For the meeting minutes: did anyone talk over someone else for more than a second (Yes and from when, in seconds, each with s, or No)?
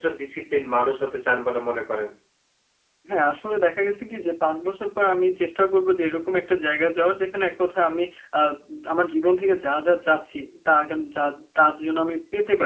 No